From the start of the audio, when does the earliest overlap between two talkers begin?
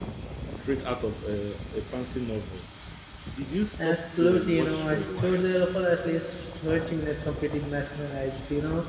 4 s

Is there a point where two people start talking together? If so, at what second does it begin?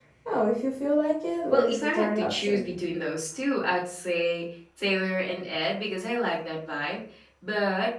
1 s

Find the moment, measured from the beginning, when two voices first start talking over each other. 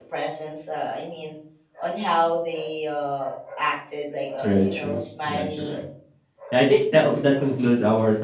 4 s

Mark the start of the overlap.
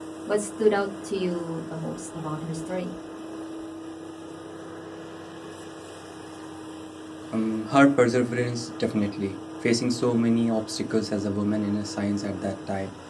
none

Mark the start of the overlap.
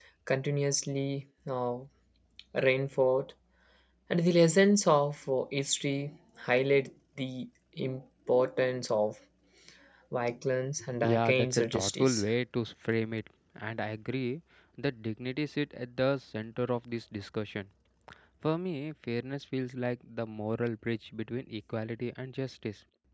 11 s

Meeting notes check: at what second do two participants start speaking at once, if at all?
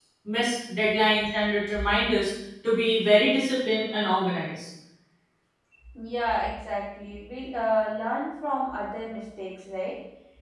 none

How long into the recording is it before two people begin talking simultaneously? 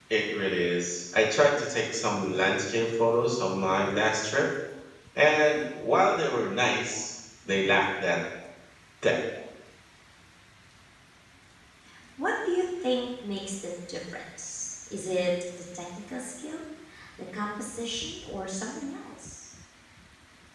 none

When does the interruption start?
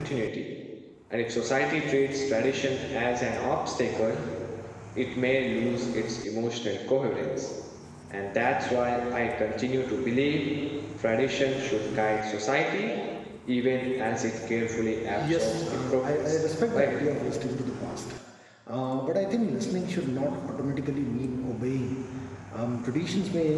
15 s

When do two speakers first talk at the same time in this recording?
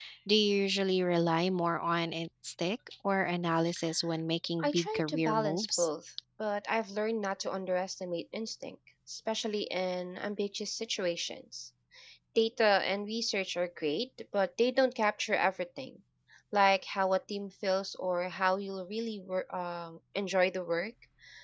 5 s

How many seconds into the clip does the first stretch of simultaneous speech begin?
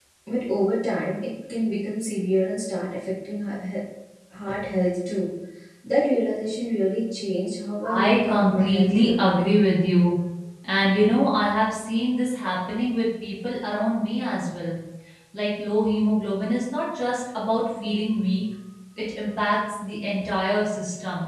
8 s

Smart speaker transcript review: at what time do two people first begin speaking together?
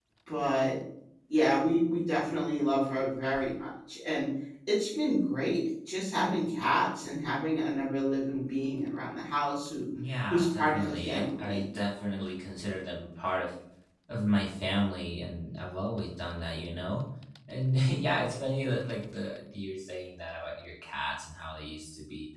10 s

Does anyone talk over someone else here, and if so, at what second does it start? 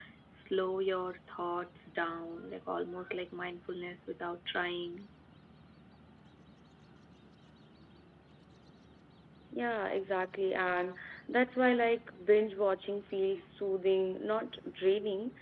none

